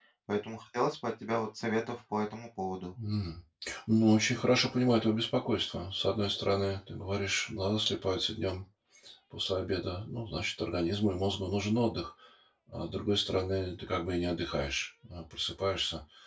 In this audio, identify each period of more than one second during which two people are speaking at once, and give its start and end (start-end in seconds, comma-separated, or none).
none